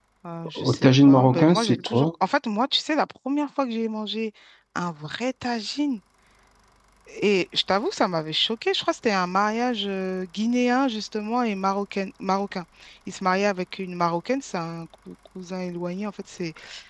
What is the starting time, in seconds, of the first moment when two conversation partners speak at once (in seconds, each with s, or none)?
0.6 s